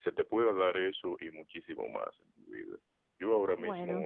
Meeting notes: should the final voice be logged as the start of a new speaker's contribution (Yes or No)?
No